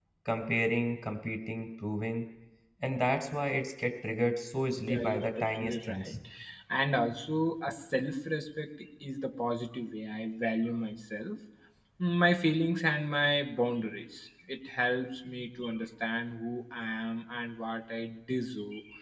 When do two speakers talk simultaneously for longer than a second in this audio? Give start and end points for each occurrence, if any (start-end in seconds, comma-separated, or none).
4.9-6.1